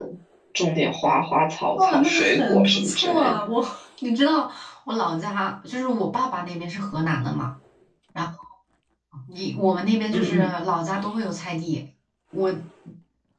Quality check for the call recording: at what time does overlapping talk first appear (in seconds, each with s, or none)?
1.7 s